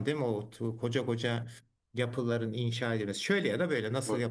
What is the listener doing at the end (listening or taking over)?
taking over